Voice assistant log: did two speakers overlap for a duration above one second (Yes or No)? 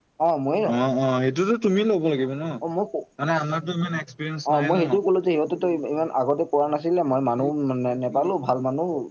No